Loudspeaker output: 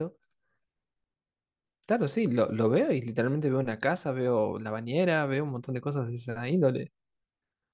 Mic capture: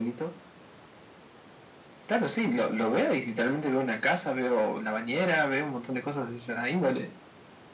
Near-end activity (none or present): none